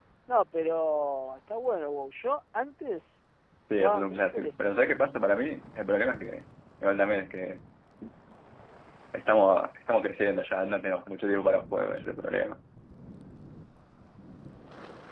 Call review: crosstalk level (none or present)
present